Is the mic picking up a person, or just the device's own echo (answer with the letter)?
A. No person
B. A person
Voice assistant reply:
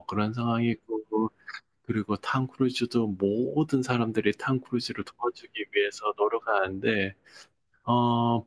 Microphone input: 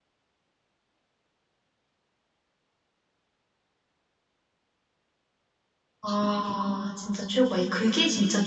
B